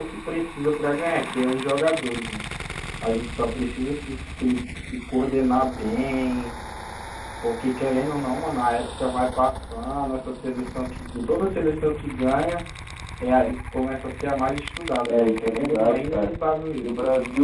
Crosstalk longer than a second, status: present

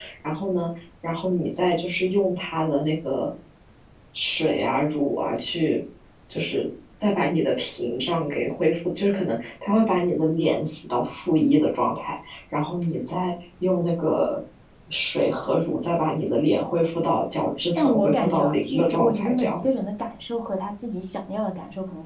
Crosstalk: present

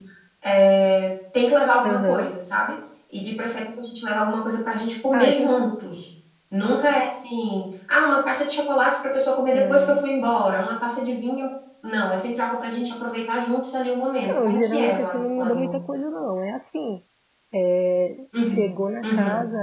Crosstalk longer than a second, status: present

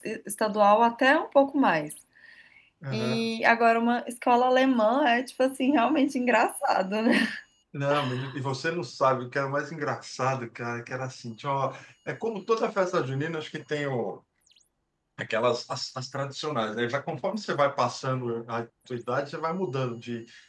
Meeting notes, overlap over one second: none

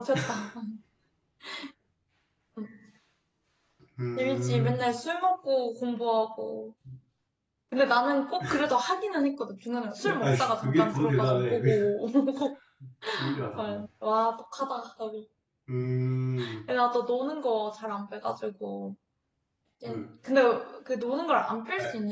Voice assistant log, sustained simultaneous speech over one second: present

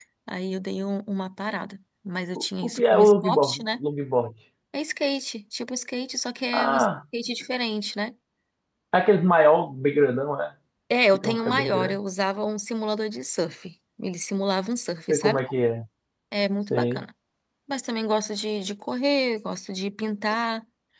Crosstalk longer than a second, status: present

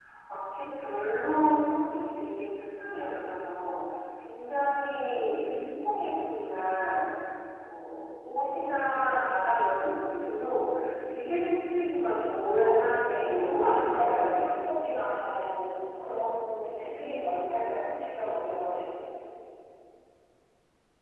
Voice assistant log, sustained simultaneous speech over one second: present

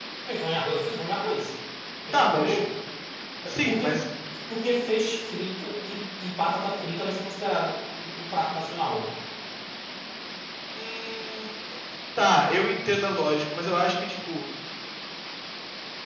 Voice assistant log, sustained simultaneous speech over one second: none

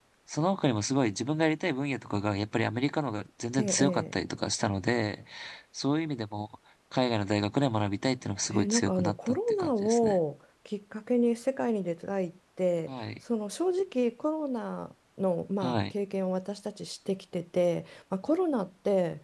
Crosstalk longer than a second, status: present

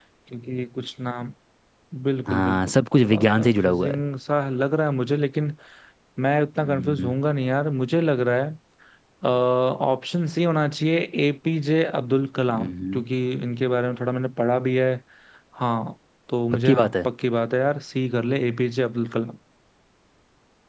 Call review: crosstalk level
present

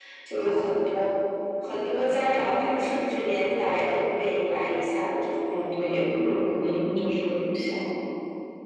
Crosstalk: none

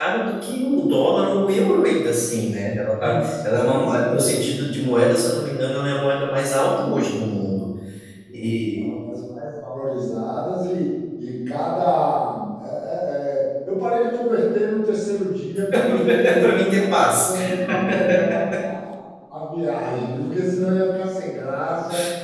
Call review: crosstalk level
present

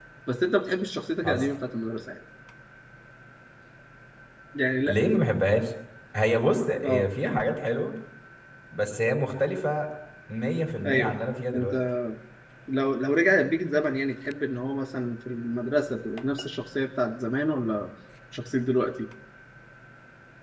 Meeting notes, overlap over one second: none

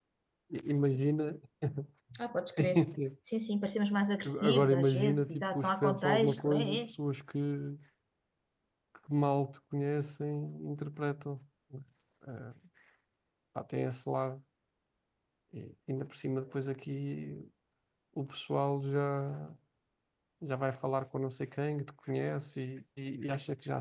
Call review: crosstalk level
present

